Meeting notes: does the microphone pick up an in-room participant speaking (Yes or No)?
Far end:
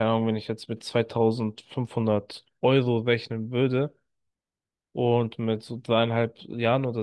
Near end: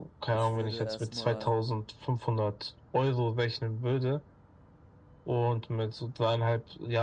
Yes